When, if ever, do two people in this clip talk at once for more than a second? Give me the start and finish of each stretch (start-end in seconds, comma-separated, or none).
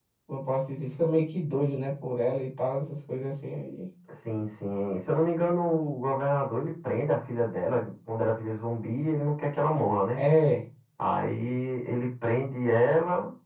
none